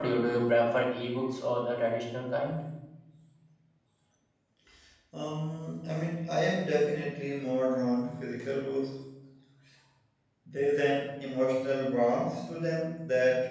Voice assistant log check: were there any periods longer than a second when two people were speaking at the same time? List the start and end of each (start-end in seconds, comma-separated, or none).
none